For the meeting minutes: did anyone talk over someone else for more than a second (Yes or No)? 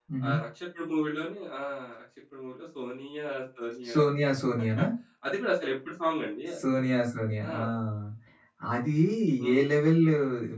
No